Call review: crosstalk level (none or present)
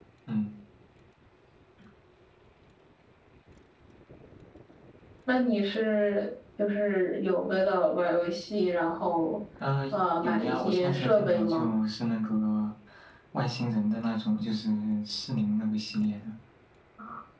present